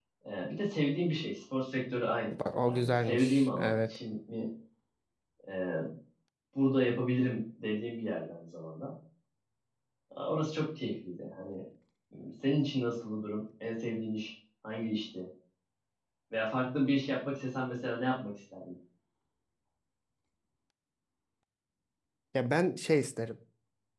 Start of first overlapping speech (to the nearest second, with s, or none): 3 s